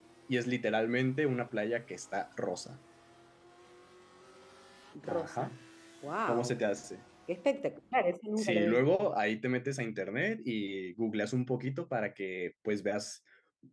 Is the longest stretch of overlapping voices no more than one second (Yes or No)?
Yes